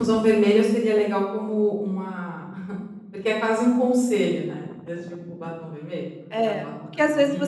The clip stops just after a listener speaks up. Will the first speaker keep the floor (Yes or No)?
No